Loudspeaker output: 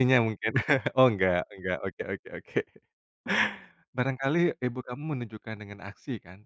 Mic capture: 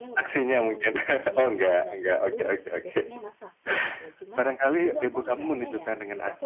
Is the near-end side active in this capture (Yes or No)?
Yes